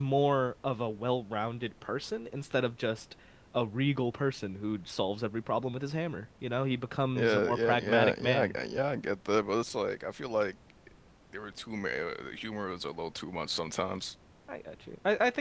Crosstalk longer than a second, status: present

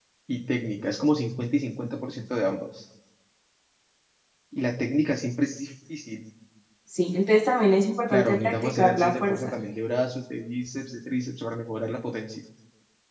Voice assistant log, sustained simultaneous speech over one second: present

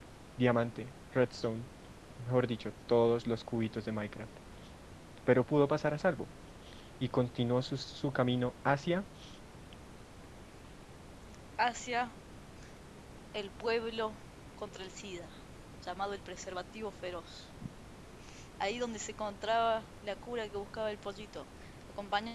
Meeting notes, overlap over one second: none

